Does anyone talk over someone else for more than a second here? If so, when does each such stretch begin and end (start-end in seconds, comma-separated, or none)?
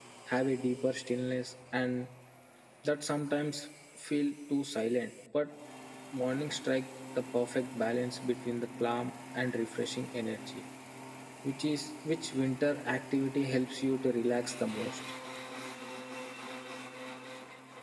none